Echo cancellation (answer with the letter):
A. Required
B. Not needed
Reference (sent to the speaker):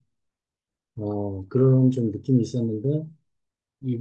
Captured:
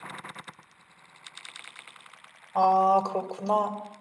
B